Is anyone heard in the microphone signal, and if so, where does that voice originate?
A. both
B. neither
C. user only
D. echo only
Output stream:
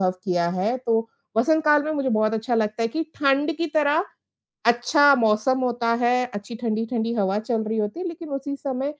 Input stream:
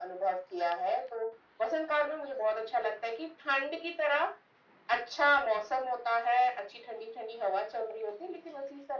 D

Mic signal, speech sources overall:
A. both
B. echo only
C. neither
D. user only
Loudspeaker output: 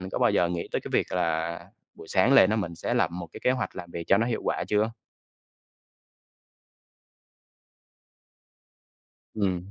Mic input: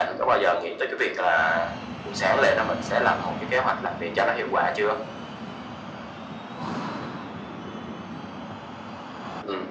B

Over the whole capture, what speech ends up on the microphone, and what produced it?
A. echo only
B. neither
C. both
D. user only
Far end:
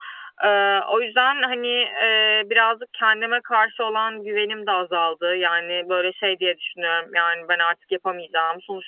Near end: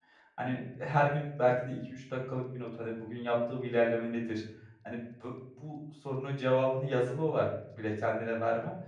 D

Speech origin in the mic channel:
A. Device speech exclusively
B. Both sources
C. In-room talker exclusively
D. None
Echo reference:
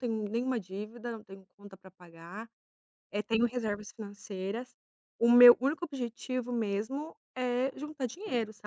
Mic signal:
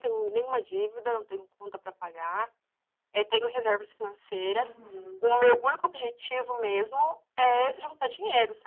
B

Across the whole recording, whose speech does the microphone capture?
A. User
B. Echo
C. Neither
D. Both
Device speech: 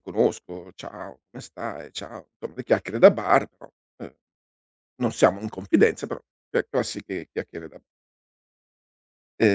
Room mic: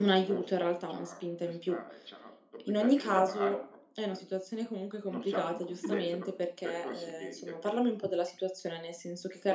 D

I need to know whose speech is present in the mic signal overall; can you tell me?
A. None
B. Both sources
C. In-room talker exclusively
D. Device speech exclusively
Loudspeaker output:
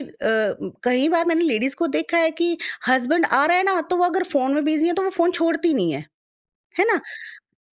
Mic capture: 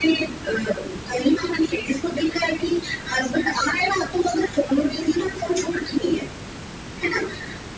D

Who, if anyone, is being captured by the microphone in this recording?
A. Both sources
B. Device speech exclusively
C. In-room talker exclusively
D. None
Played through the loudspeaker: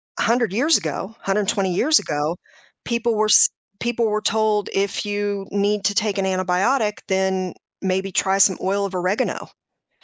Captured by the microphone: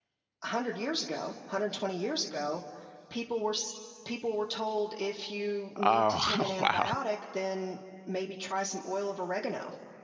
A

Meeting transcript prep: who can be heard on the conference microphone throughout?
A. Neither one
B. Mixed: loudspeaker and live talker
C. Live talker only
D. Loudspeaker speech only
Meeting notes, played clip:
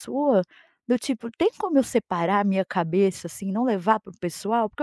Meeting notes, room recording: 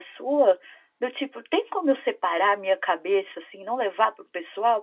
D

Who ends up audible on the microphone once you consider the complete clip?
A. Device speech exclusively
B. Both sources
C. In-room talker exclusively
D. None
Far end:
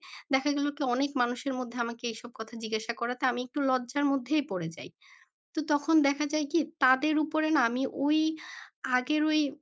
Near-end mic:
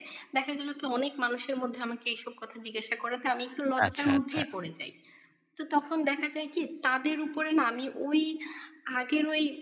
B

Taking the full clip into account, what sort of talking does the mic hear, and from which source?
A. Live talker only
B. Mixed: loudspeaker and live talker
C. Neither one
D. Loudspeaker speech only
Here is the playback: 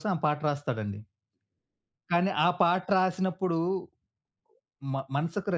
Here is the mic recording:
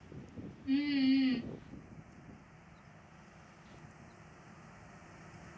A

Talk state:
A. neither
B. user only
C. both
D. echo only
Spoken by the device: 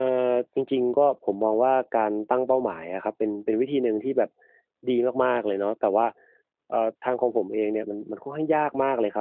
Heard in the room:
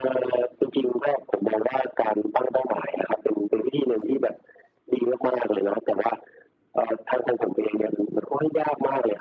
D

